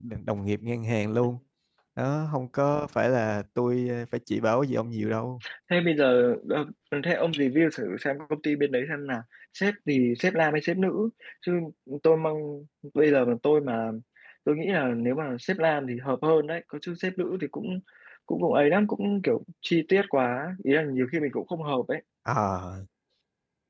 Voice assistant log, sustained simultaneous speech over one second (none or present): none